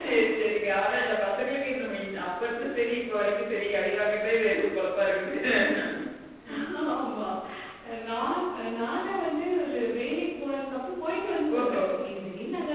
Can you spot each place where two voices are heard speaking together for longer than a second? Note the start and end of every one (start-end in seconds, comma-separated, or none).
none